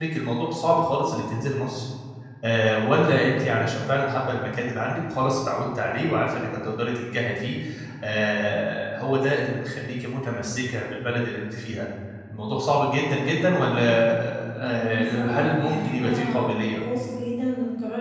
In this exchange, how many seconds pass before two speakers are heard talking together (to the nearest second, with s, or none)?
15 s